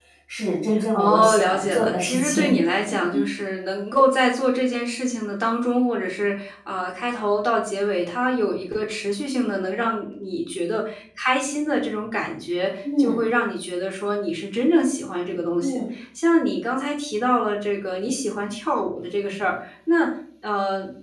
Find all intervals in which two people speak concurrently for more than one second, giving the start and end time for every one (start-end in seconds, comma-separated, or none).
0.9-2.6